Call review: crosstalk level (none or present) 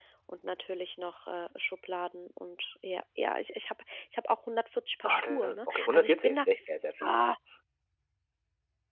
present